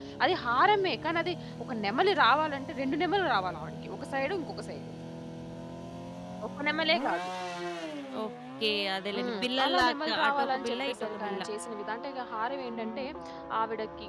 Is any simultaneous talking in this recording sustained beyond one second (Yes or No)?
Yes